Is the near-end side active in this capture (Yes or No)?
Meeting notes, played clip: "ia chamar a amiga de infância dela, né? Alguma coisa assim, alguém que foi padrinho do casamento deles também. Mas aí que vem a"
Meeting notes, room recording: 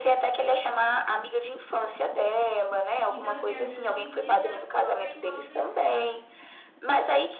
Yes